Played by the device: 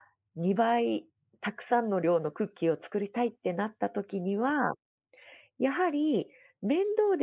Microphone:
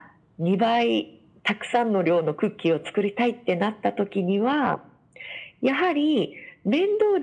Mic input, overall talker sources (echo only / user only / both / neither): echo only